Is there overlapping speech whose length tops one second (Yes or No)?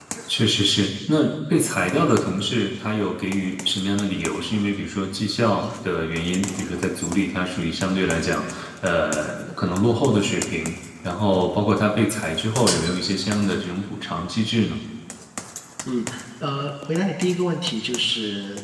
No